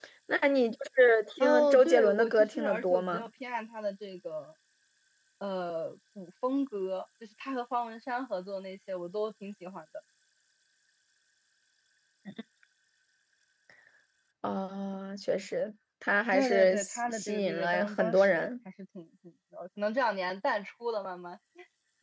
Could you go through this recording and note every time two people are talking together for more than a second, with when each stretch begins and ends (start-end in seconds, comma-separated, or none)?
1.4-3.2, 16.3-18.5